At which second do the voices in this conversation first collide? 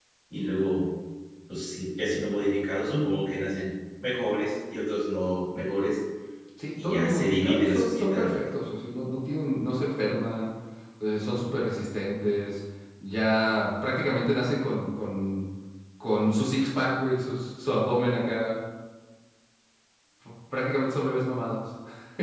7 s

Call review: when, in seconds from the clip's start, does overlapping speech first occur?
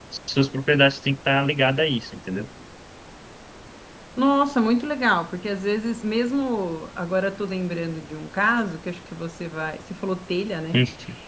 none

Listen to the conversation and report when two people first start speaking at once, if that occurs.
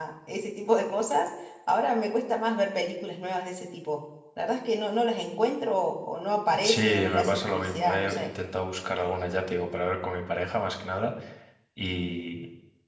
6 s

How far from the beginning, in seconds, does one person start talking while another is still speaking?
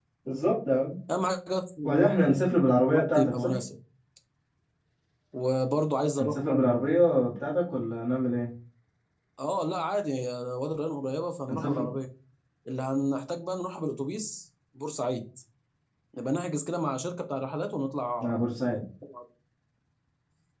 2 s

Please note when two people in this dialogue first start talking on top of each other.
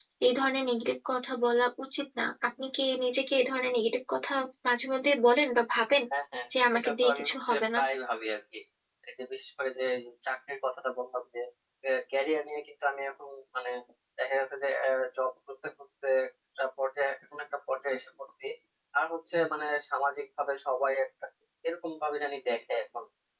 7 s

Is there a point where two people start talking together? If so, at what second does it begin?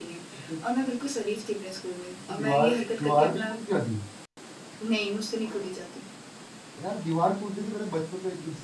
2 s

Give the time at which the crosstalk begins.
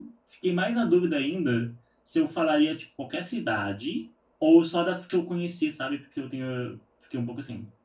none

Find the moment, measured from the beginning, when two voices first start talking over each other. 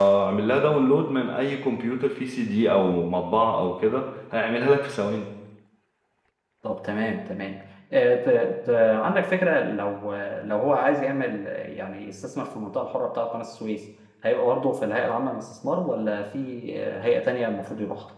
none

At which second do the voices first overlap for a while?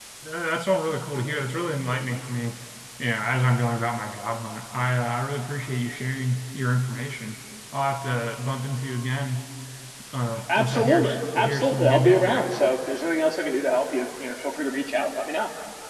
11 s

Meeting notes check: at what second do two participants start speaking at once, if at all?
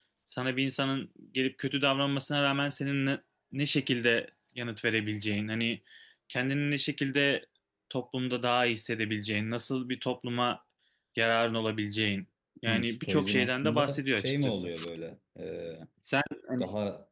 13 s

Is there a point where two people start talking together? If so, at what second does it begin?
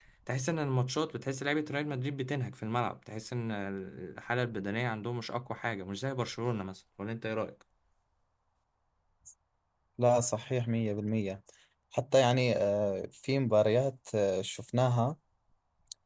none

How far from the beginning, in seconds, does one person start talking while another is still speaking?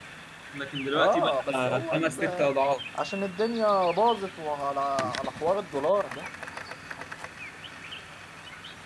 1 s

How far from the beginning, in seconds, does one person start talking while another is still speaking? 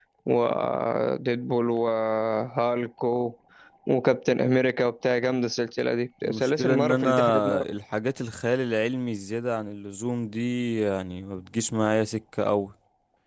6 s

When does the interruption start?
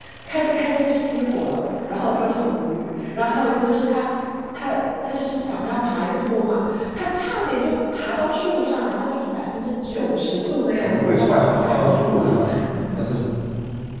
11 s

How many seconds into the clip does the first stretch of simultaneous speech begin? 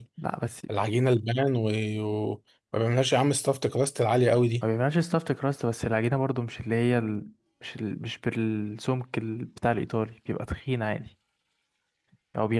none

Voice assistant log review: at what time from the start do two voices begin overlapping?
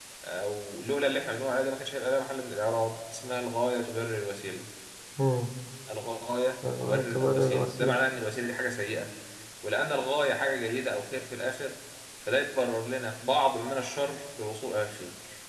7 s

